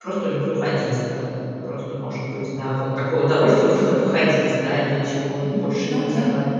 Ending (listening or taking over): taking over